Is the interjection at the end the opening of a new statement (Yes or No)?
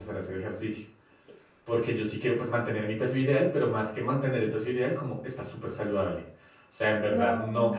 No